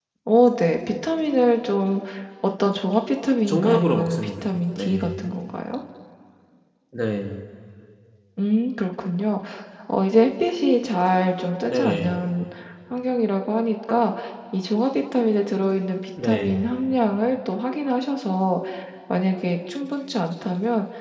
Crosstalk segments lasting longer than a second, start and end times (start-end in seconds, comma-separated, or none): 3.5-5.3